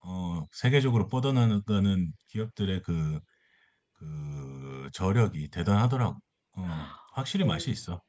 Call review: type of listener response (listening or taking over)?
taking over